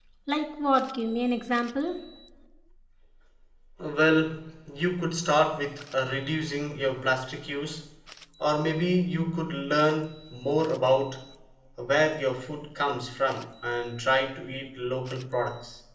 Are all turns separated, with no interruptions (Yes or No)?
Yes